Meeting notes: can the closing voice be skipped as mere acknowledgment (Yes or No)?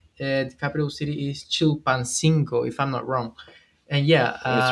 Yes